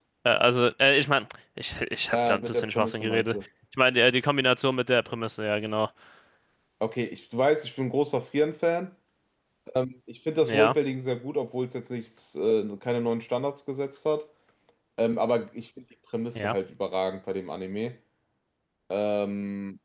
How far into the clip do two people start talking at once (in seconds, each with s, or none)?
2.0 s